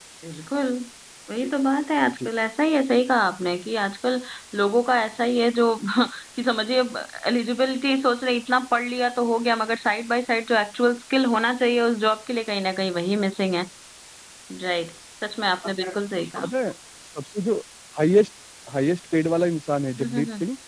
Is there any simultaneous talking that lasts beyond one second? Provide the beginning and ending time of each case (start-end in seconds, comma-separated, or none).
none